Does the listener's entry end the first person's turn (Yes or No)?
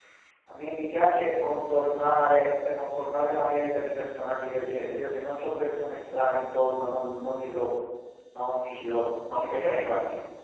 Yes